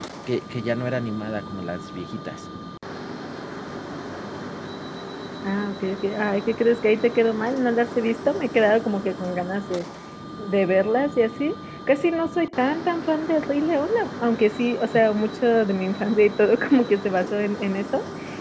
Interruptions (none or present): none